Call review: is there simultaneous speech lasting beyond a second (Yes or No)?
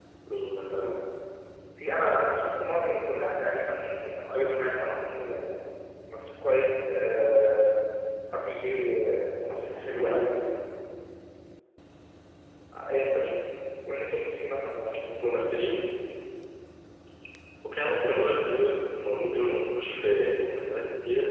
No